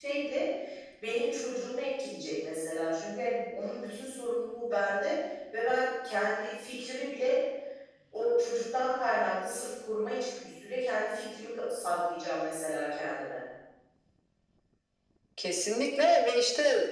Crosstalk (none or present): none